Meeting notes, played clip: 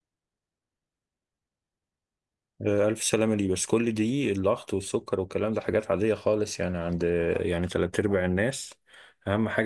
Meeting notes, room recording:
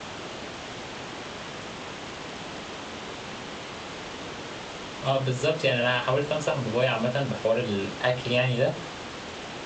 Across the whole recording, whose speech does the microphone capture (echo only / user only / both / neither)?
user only